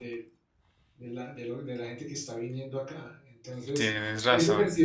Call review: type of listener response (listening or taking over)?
listening